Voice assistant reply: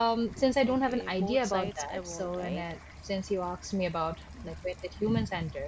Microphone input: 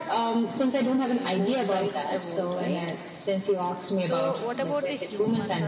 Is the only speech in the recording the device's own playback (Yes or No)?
No